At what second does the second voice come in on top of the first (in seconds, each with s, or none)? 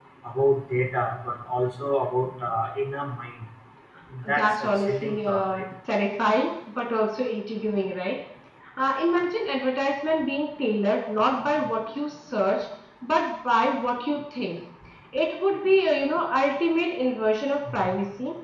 4.3 s